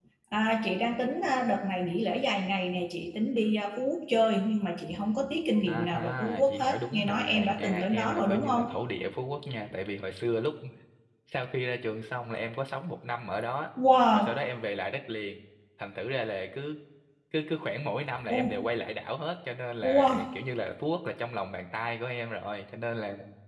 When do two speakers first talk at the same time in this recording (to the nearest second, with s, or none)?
6 s